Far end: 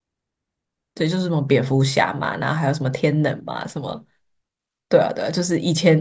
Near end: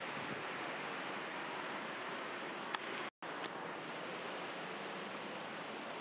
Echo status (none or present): none